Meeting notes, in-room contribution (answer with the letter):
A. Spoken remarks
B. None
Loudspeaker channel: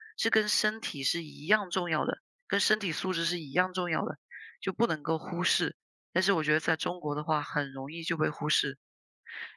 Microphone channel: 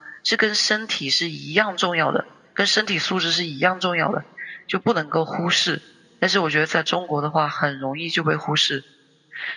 B